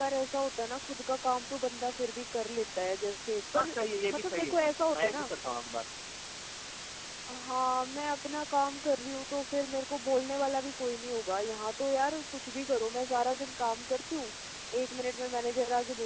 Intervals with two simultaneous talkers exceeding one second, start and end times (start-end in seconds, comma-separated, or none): 3.5-5.3